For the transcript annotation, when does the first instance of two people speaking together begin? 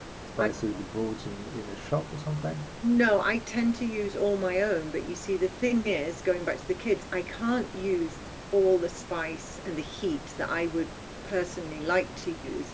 none

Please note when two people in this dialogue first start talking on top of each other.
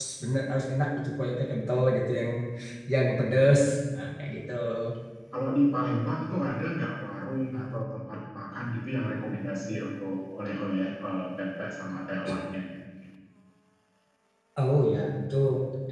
none

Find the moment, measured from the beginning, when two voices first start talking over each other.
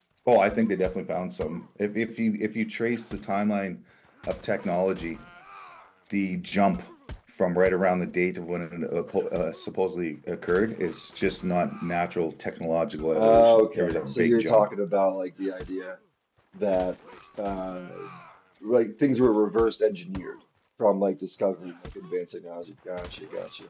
13.1 s

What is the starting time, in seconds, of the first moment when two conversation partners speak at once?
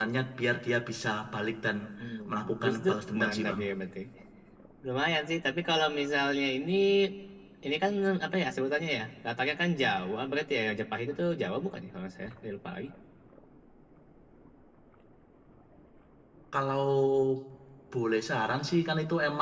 2.3 s

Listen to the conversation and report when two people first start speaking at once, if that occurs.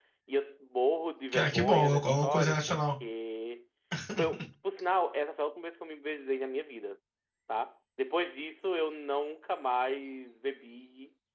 1.3 s

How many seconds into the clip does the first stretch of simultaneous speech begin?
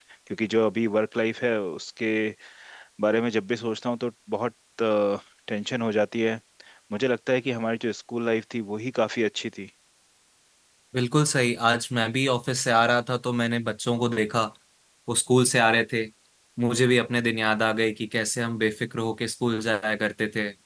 none

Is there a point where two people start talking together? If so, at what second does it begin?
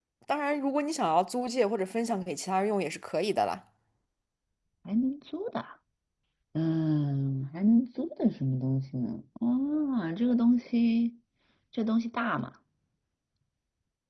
none

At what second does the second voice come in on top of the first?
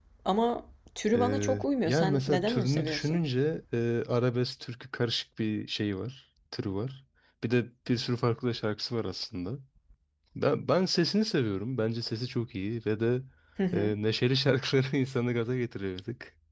1.2 s

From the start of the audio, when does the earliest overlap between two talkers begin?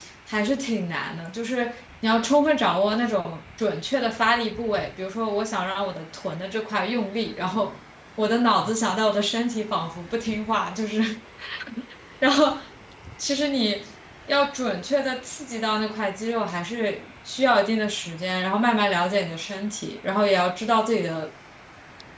none

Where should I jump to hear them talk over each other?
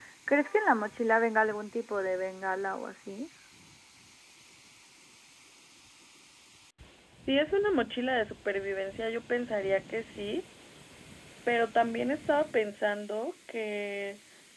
none

